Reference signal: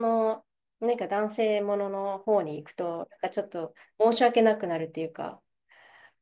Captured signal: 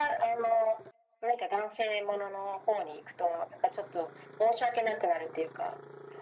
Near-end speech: none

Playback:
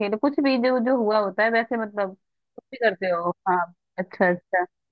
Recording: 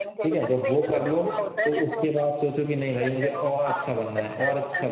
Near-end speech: present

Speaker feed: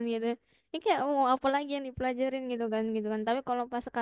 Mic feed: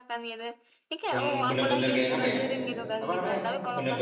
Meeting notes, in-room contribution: present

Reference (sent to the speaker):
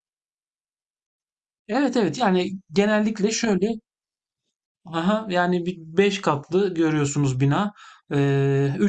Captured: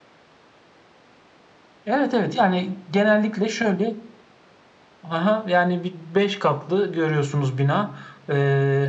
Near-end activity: none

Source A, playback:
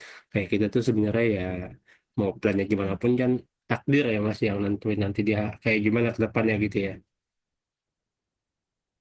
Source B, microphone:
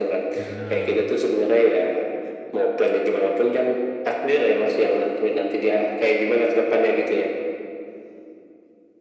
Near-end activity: present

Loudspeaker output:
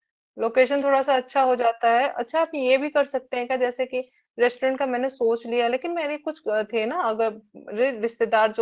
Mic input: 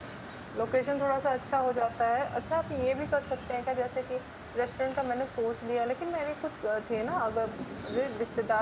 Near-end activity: none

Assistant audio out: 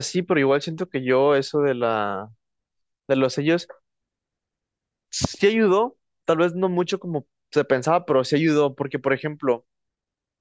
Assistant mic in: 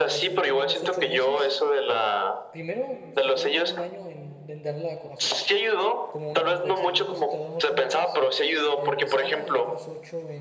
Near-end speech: present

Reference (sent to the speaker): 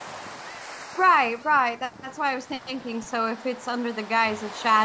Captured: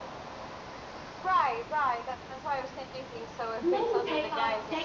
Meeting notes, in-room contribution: present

